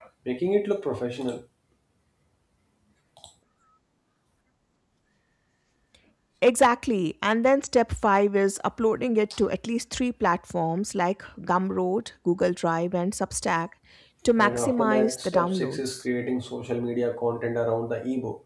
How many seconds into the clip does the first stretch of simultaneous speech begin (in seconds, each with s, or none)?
14.4 s